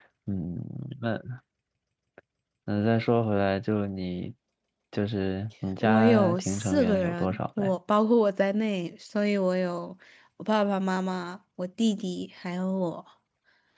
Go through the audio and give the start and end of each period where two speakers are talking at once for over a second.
5.8-7.7

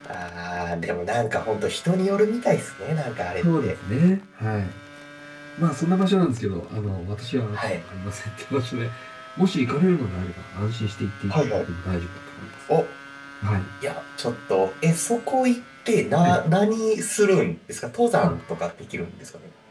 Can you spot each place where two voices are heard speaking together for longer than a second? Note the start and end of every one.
none

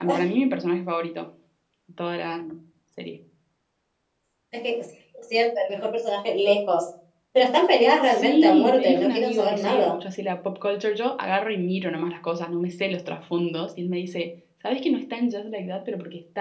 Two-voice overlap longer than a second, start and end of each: 8.1-10.0

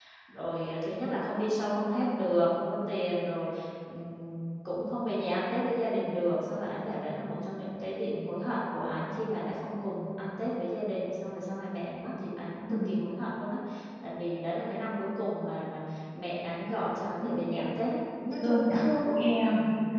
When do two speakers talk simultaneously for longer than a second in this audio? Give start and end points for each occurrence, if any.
none

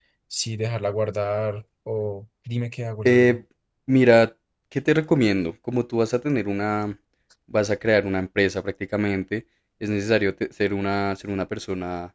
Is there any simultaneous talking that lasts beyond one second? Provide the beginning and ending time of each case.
none

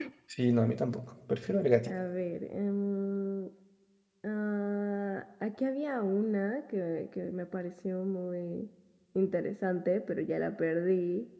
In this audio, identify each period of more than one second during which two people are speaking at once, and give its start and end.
none

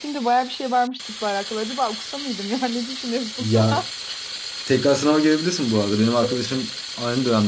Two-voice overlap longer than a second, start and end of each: none

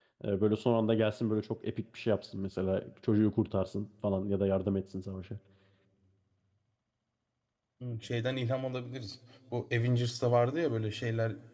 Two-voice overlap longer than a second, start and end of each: none

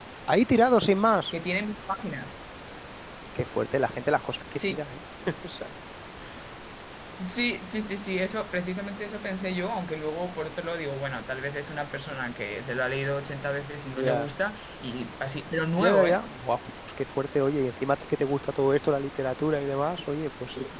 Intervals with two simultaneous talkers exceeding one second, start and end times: none

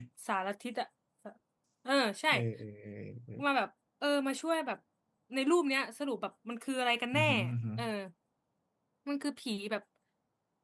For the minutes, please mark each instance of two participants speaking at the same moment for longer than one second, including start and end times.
none

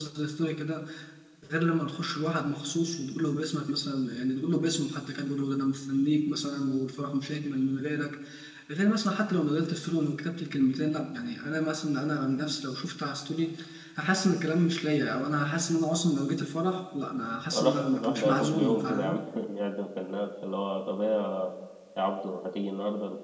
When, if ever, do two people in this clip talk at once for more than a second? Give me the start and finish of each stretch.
17.5-19.2

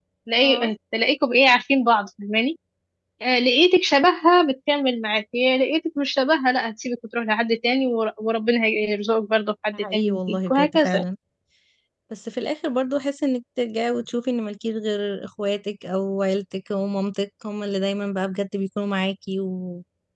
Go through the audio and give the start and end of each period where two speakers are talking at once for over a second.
9.7-11.0

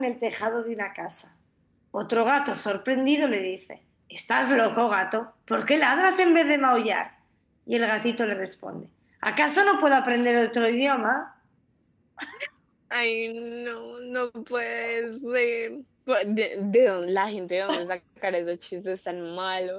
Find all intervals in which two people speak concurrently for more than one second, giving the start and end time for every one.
none

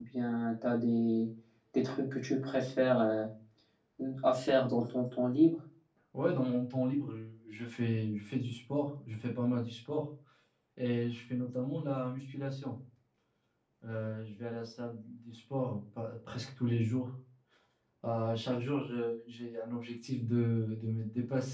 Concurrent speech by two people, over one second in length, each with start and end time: none

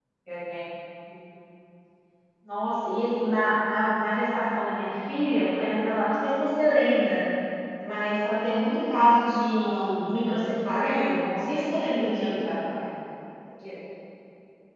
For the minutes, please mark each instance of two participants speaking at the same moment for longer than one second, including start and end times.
10.7-12.4

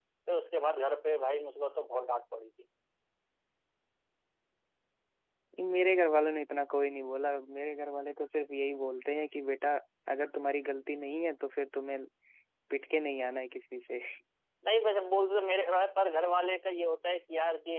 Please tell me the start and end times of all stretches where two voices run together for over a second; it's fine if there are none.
none

